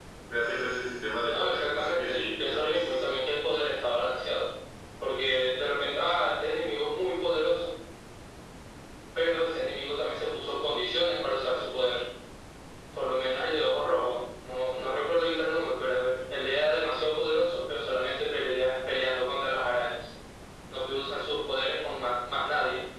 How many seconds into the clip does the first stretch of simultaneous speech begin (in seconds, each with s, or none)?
1.3 s